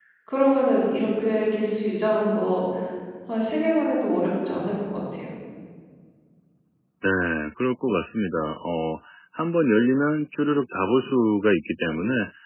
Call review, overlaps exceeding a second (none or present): none